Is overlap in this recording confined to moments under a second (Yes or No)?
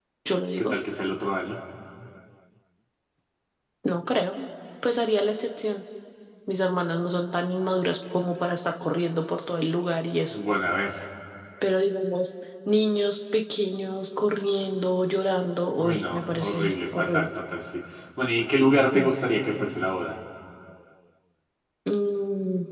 No